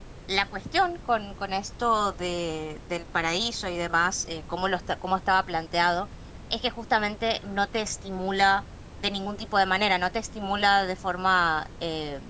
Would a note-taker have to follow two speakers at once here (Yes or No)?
No